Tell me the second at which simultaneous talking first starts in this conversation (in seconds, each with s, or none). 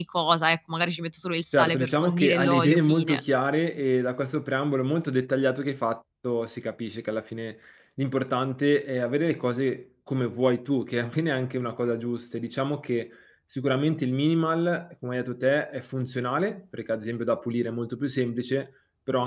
1.5 s